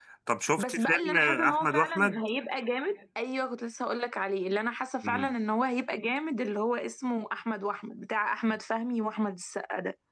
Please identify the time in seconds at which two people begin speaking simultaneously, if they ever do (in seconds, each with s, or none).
0.6 s